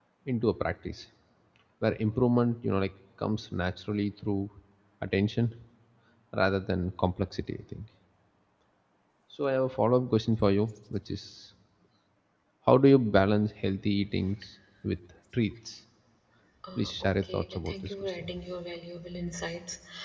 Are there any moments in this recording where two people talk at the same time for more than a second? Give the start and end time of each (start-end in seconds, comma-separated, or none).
16.8-18.3